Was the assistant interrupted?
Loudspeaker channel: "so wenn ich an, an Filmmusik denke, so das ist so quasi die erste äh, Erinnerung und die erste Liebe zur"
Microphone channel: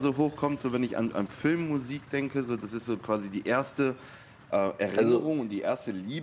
Yes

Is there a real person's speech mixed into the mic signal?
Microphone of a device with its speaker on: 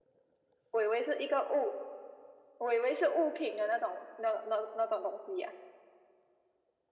No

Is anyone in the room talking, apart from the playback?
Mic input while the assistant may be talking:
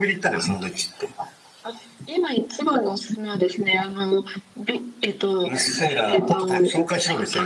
No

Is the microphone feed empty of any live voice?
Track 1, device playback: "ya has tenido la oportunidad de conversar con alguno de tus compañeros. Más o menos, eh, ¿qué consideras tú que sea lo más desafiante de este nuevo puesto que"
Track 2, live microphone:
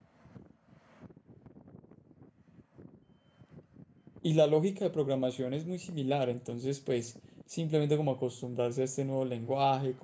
No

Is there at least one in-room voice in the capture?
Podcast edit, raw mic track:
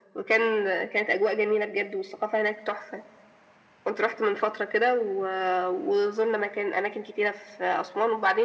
No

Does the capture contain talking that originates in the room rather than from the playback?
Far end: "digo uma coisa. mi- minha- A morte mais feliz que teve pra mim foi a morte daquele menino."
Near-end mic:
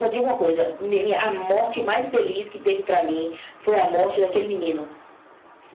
No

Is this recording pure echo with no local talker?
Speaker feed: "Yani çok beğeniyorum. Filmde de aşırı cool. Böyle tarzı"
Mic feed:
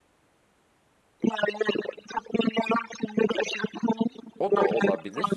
No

